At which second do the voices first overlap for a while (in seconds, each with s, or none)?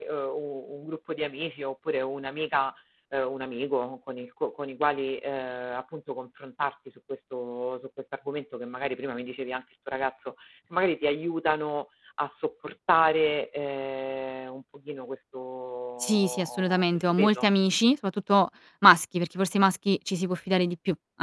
16.0 s